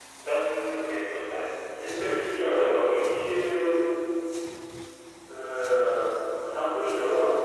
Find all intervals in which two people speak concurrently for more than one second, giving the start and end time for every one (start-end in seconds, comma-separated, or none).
1.8-3.2